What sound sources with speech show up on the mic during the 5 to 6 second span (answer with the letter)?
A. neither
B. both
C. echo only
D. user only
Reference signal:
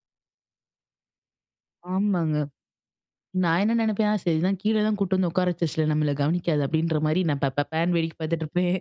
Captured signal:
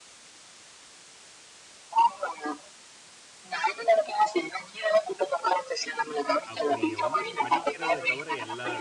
C